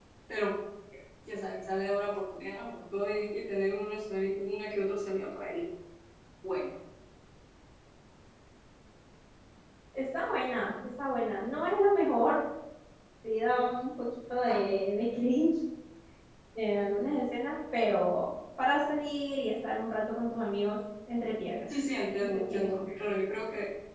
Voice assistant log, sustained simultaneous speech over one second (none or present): none